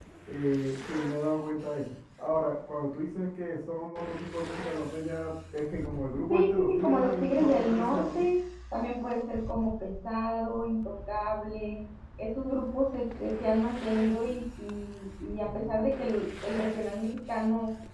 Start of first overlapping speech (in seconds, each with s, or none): 6.3 s